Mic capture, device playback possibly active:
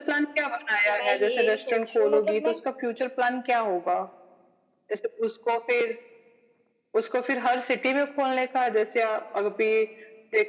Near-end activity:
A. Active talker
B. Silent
A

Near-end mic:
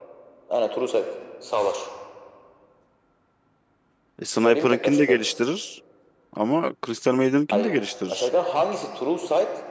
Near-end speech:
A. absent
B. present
B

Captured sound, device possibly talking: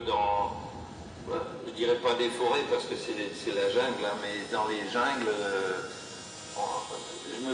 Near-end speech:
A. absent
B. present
A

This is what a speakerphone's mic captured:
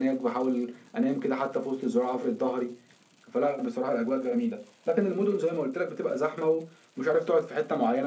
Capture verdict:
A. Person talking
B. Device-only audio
B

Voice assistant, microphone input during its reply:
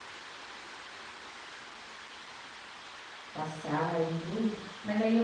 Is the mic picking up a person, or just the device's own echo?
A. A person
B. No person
A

